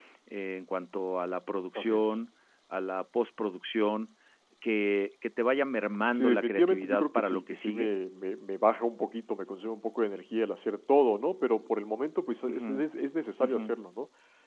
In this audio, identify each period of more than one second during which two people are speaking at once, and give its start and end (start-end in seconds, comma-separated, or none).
6.1-7.9